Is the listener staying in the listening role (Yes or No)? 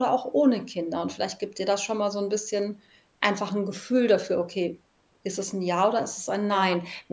Yes